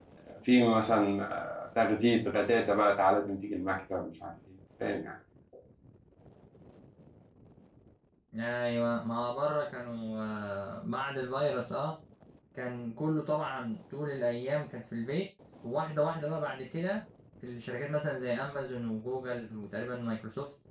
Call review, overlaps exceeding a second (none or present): none